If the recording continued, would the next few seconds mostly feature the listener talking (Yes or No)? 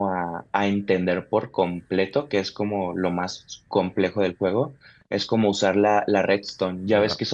No